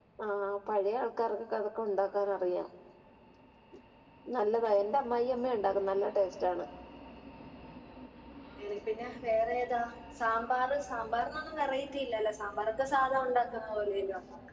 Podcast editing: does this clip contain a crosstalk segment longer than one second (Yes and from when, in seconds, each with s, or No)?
No